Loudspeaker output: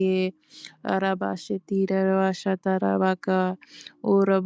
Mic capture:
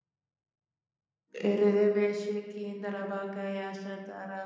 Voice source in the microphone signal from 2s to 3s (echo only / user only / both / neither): user only